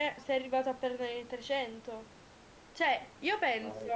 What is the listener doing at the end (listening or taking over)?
listening